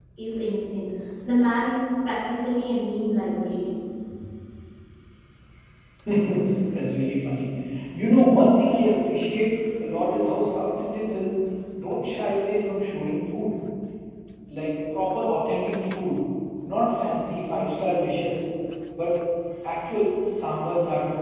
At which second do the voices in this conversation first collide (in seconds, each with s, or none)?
none